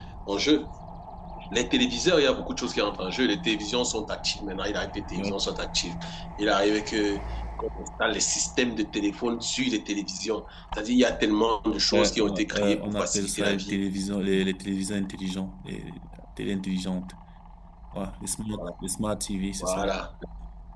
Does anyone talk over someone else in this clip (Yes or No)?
Yes